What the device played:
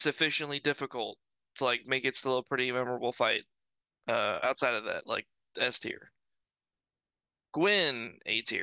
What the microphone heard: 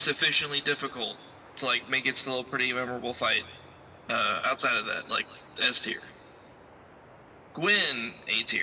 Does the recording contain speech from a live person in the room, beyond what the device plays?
No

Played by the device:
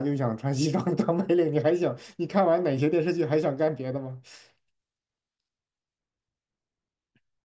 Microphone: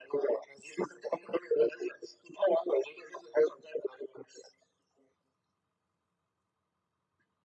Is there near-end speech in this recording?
No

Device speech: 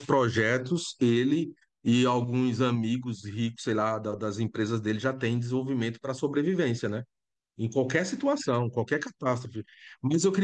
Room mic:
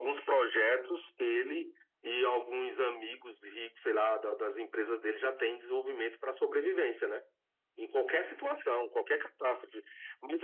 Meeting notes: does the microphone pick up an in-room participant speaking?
No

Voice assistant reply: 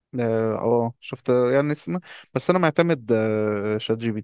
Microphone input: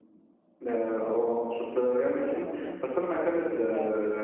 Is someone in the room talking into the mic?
Yes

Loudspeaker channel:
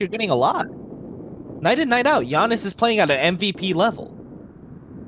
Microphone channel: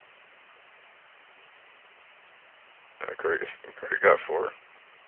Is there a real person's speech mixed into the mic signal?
Yes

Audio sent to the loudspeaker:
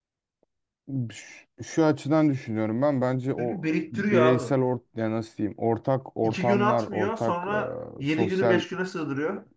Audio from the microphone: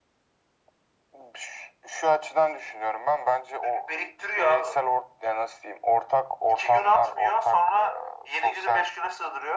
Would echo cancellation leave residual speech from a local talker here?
No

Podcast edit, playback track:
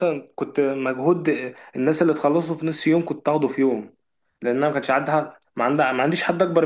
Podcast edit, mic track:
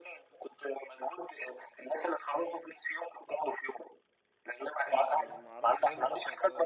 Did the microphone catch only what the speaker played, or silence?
No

